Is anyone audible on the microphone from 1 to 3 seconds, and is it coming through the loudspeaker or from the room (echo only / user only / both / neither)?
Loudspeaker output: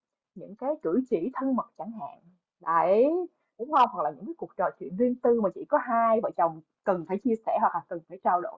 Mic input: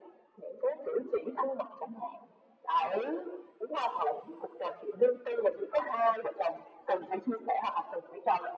echo only